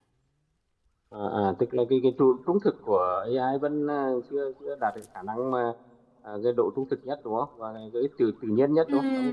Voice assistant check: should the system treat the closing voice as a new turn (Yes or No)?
Yes